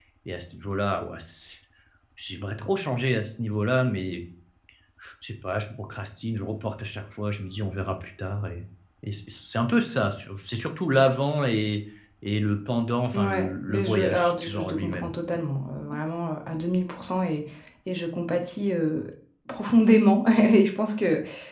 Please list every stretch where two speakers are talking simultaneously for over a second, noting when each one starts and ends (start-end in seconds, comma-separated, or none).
13.2-15.1